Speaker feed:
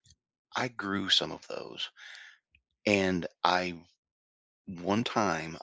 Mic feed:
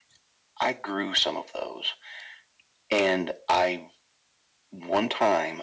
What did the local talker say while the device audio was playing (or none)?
none